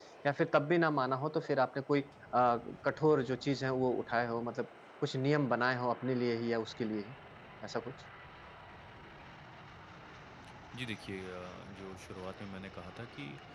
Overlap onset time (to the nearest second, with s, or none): none